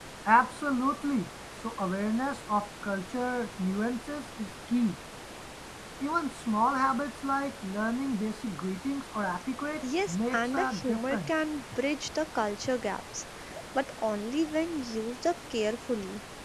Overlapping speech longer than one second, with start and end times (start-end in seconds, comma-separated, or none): 10.1-11.3